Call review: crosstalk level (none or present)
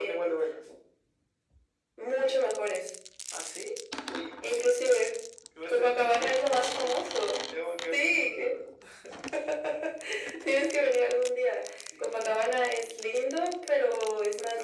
present